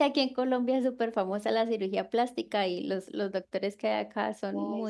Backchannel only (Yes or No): No